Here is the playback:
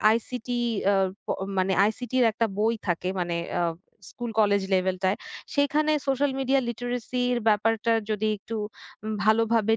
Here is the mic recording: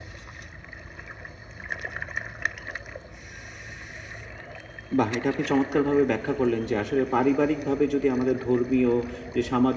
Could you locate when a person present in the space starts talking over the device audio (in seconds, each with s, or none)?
5.0 s